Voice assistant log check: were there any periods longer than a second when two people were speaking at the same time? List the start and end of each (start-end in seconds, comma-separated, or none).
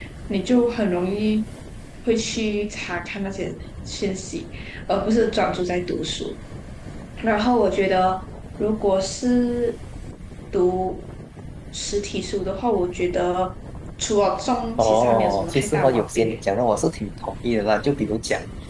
14.8-16.4